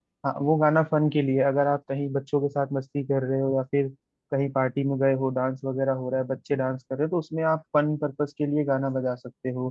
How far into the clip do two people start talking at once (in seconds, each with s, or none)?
none